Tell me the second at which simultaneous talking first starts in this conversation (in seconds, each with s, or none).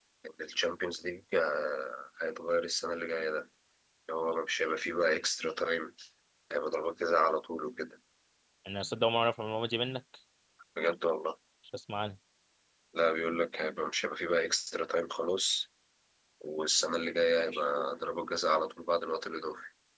none